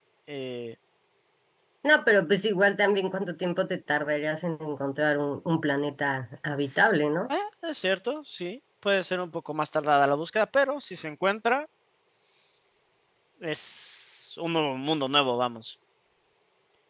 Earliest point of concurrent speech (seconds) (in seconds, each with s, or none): none